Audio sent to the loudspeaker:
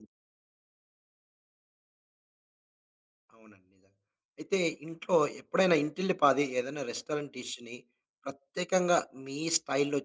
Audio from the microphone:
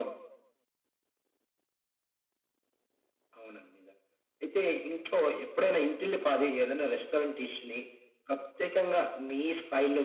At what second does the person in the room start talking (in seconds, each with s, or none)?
none